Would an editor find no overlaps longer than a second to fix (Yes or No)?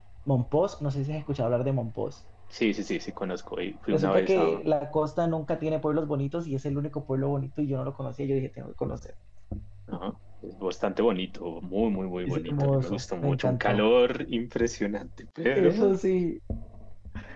No